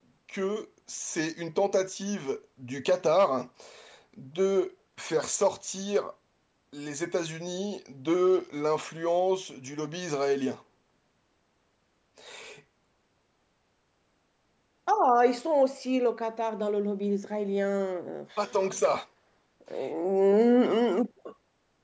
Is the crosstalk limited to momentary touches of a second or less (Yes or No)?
Yes